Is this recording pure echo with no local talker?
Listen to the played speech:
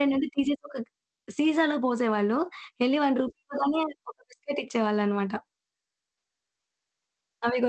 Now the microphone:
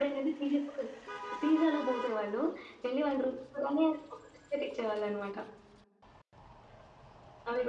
Yes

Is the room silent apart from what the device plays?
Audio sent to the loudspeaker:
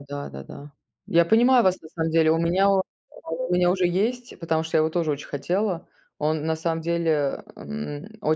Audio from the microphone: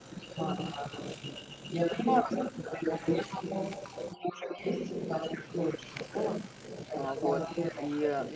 No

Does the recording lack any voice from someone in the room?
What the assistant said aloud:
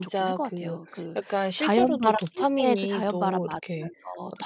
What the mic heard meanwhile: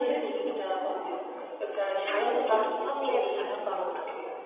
Yes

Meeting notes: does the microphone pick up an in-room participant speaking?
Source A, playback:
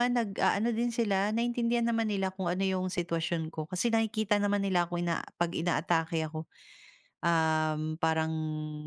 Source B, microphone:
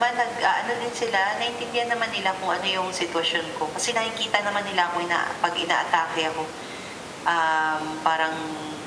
No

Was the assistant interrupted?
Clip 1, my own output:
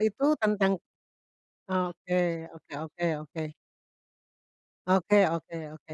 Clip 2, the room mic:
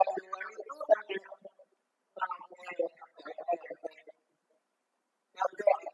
No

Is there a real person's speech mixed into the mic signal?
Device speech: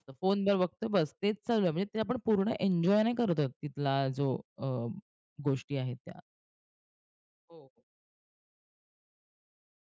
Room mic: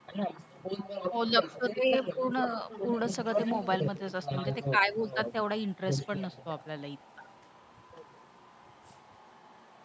Yes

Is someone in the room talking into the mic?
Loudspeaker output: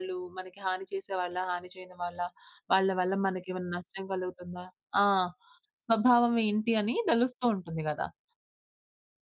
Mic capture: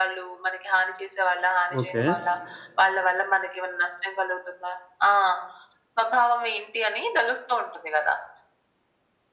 Yes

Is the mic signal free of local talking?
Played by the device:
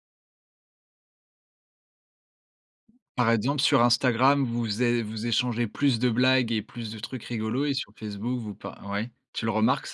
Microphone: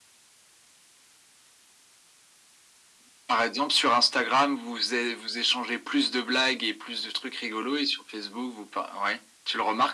Yes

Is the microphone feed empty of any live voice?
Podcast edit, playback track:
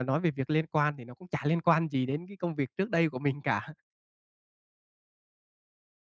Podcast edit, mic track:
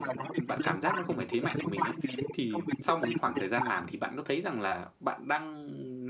No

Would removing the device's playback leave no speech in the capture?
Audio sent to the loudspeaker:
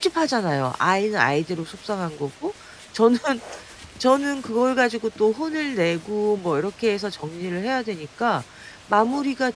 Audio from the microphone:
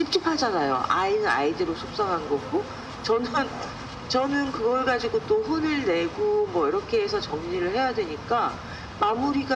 Yes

